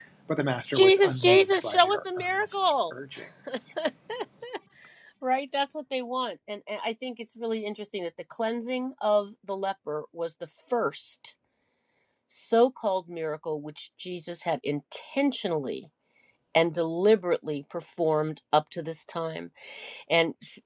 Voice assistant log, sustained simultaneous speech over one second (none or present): present